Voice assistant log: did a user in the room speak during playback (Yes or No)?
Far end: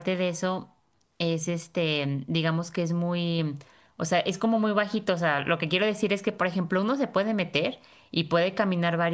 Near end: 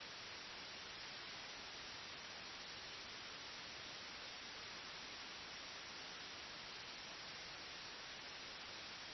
No